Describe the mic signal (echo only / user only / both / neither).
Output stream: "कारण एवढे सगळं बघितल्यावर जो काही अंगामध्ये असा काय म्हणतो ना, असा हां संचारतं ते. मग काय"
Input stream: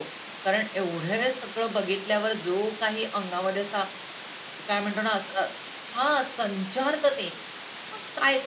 echo only